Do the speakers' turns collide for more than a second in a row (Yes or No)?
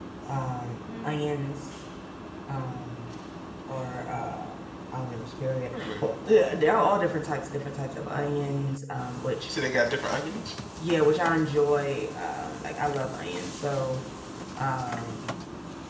No